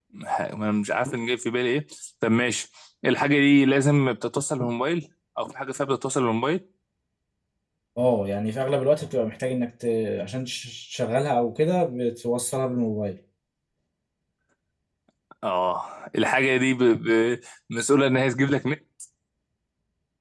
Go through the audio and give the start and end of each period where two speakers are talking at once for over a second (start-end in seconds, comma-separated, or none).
none